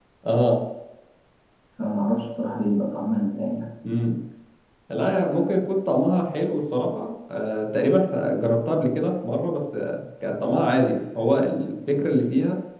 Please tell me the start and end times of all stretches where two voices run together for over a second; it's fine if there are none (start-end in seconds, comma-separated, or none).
none